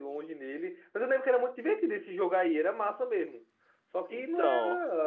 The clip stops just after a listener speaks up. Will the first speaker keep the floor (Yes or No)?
Yes